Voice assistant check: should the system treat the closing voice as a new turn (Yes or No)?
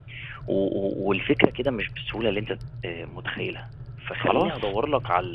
No